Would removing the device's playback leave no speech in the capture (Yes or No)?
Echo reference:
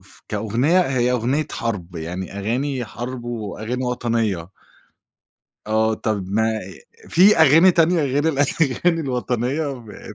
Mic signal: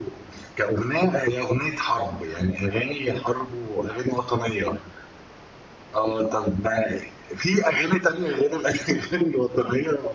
Yes